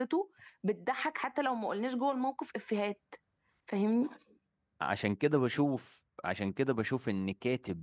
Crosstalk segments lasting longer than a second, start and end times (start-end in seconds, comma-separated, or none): none